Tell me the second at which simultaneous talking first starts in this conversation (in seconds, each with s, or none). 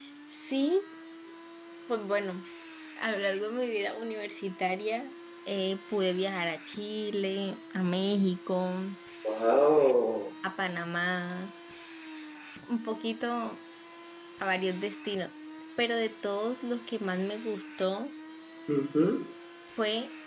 none